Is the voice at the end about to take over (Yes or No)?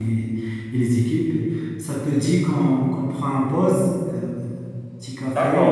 Yes